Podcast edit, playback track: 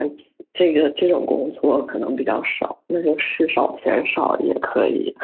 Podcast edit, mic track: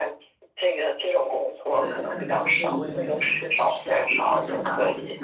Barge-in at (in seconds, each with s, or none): 1.7 s